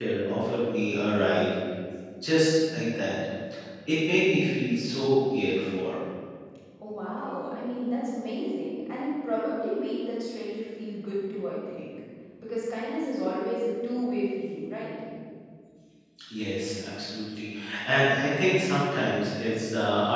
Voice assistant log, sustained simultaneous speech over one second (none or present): none